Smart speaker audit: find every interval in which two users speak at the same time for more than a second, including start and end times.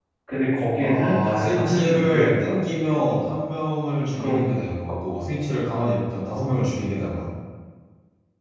0.8-2.6

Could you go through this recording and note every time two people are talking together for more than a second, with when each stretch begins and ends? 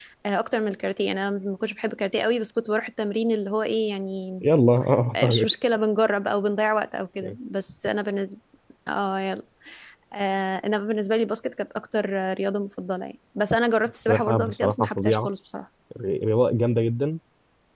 13.9-15.3

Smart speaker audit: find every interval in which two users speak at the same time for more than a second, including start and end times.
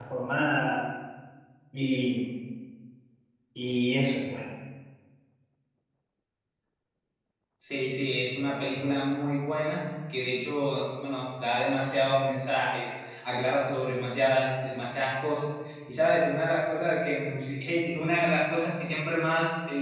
none

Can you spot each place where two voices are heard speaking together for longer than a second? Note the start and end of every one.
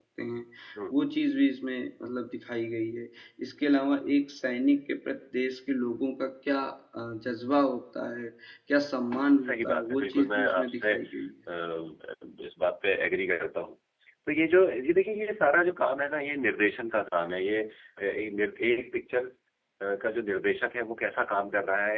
9.4-11.0

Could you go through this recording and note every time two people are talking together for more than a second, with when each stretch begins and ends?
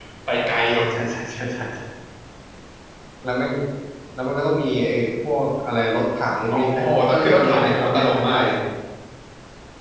6.5-8.5

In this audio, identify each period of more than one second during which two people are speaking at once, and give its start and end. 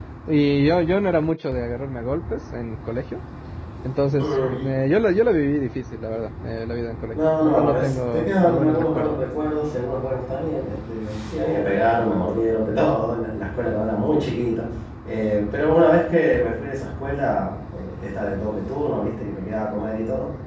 7.4-9.2

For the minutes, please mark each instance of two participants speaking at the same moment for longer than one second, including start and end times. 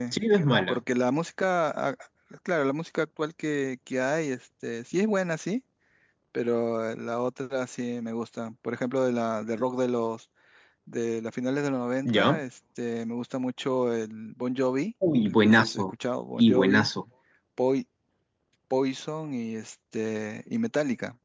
none

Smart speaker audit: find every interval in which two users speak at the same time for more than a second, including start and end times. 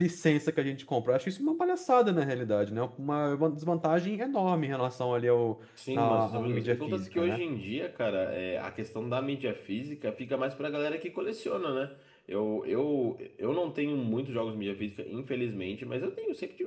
5.9-7.4

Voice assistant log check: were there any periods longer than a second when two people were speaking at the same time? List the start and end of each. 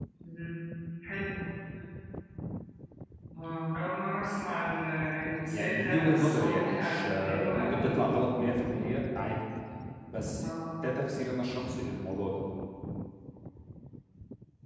5.4-8.0

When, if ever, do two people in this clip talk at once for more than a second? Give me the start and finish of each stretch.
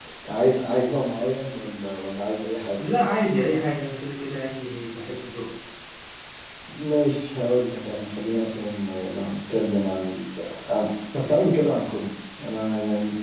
none

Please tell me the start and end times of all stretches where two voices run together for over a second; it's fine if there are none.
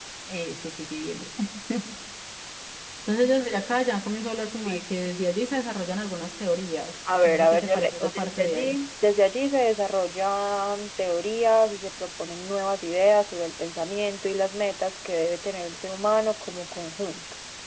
7.2-8.8

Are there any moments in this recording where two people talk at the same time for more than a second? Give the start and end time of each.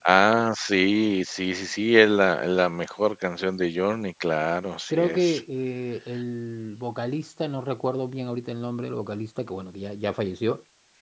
none

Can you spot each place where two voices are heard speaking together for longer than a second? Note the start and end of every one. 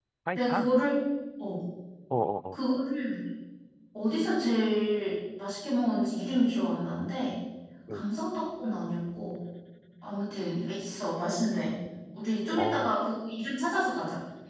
none

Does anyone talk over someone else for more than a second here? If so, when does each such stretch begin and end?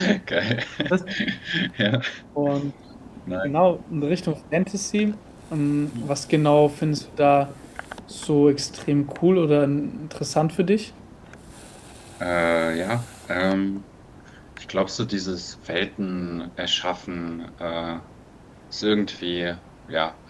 none

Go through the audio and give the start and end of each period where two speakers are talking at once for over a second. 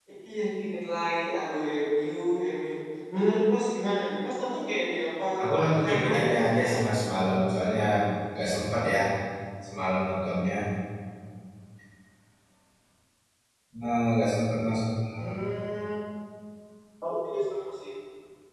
5.4-6.7

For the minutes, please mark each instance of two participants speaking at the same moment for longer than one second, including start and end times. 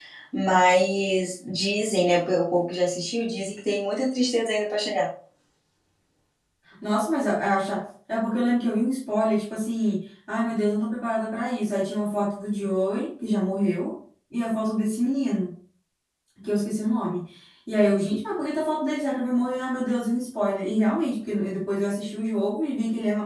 none

